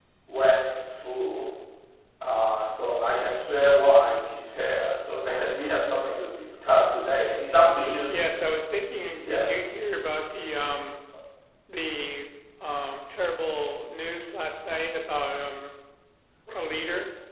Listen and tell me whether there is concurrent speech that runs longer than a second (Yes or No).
No